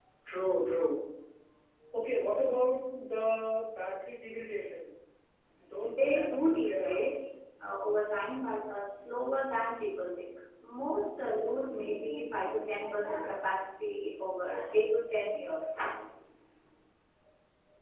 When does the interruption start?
6 s

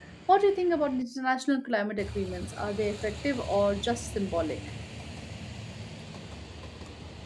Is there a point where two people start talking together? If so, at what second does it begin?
none

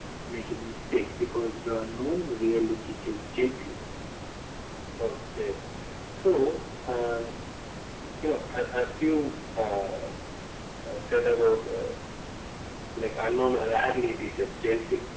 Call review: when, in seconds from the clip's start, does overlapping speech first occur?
none

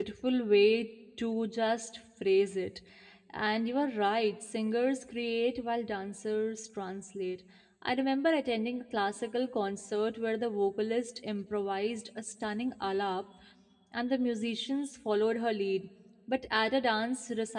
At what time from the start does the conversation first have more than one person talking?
none

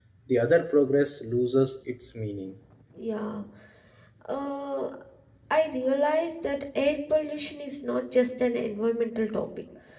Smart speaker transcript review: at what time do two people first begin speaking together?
none

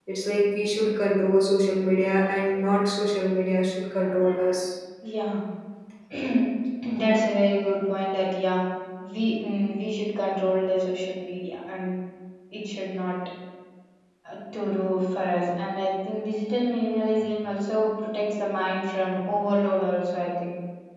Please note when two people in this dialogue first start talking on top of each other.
none

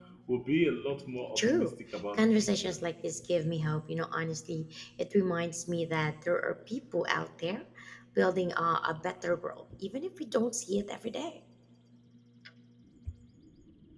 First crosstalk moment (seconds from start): 1 s

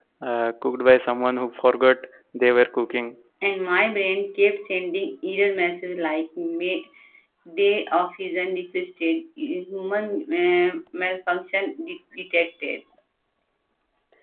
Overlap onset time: none

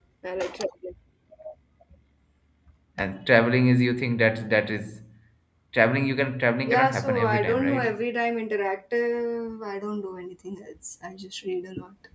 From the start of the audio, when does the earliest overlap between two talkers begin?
7 s

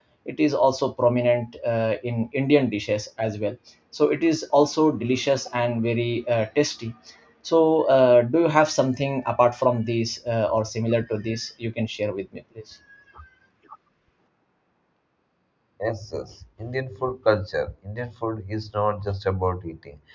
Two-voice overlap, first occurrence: none

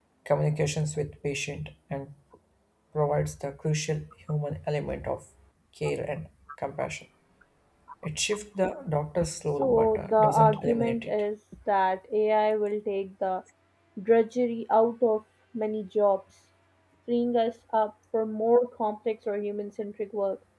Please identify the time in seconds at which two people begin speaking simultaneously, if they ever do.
10 s

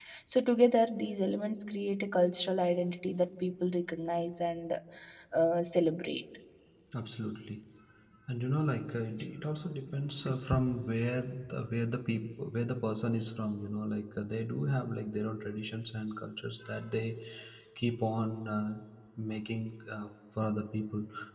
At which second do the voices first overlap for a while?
none

